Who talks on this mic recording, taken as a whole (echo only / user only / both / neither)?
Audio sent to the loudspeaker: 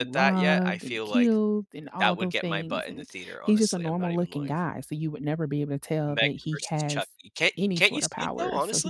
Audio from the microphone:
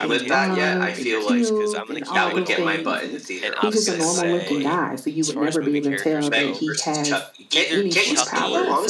both